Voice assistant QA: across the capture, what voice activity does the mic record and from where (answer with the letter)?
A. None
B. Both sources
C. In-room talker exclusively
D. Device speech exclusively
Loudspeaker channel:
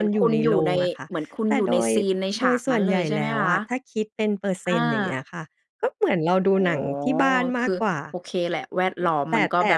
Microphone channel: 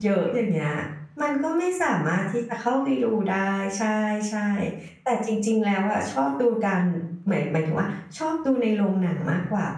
C